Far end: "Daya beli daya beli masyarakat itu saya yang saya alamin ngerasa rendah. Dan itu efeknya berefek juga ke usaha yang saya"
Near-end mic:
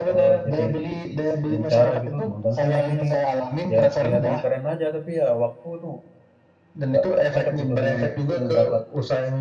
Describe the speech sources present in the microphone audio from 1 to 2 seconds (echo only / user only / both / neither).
both